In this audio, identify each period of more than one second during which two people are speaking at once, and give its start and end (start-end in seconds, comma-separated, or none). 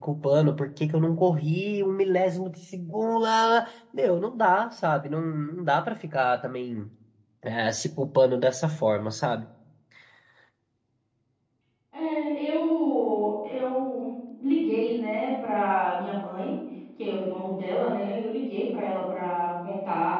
none